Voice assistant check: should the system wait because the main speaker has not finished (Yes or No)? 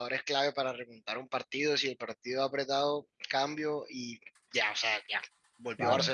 Yes